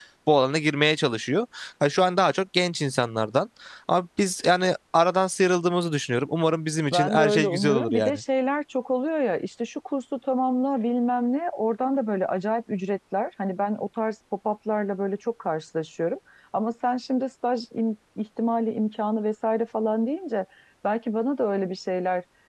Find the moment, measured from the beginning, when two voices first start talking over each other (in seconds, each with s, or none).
6.9 s